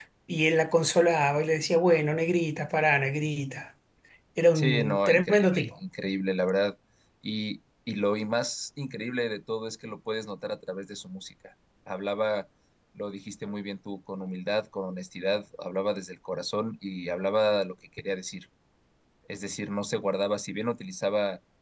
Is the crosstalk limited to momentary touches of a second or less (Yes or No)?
No